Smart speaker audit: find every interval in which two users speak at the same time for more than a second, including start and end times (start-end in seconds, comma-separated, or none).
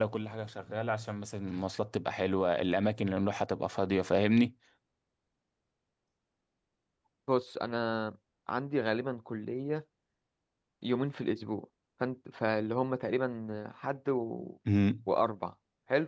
none